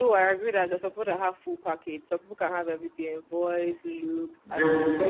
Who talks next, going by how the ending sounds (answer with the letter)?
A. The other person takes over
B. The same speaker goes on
A